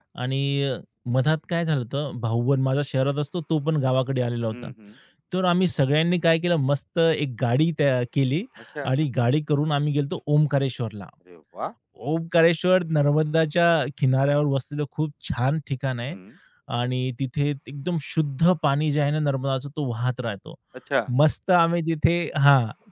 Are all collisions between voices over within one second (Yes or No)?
Yes